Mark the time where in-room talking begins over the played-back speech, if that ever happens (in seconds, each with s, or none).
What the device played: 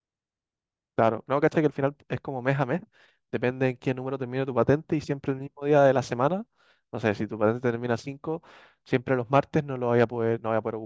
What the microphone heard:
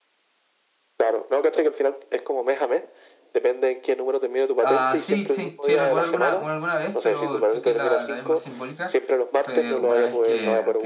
4.6 s